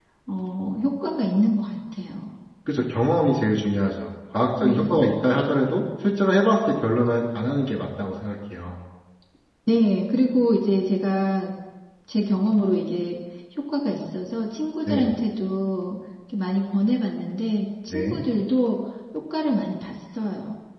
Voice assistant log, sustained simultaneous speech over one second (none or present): none